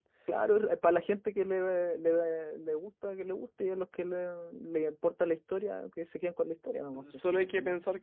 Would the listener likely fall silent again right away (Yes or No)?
No